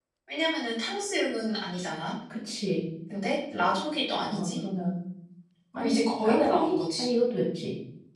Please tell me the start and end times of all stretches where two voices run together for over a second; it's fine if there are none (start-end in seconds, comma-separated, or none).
5.8-7.0